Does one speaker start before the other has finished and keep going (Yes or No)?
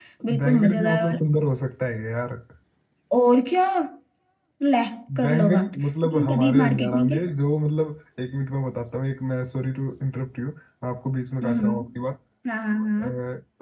Yes